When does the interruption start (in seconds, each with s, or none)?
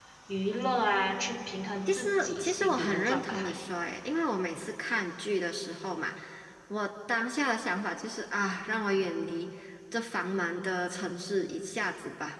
1.9 s